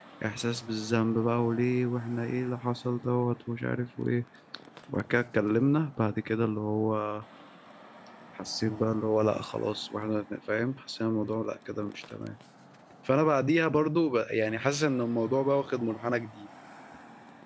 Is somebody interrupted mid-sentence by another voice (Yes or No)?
No